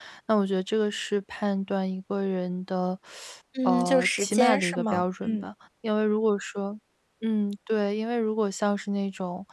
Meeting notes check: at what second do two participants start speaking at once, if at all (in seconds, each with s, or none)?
3.6 s